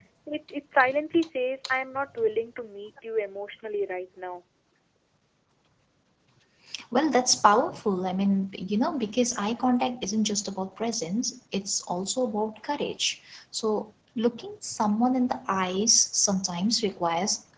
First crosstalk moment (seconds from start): none

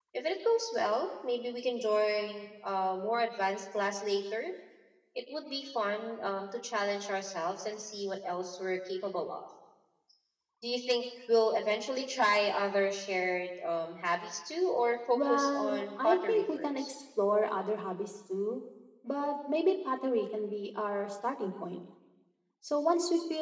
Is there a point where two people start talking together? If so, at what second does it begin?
15.1 s

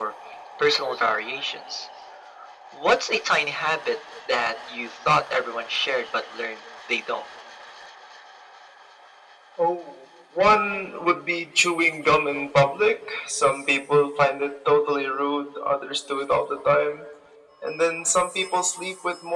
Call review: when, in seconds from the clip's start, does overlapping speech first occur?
none

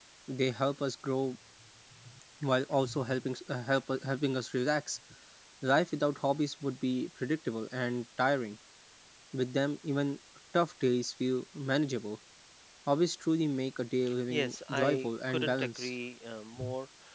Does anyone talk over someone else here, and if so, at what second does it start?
14.3 s

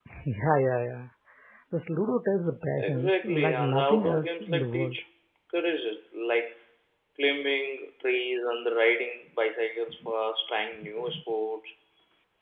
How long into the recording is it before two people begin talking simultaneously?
2.8 s

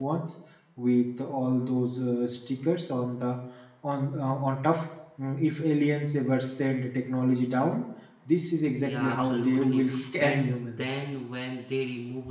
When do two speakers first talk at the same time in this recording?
8.7 s

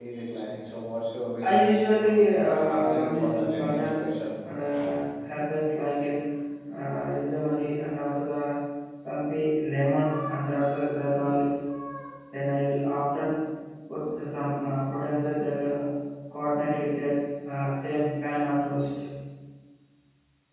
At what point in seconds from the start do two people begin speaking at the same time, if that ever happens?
1.4 s

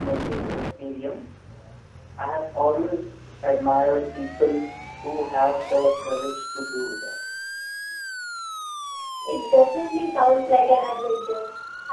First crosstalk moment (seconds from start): none

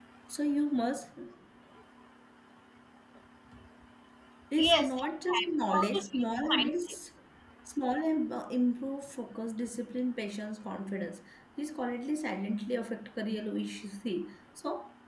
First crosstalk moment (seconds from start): 4.6 s

